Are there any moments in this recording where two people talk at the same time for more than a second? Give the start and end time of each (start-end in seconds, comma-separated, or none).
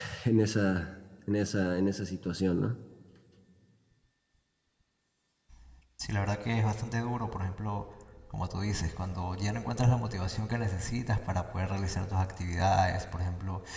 none